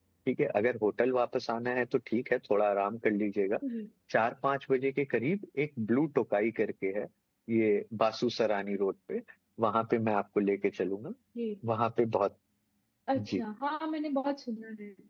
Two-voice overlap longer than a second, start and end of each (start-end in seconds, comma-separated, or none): none